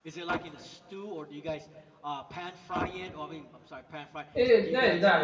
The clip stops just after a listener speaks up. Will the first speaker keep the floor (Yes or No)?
No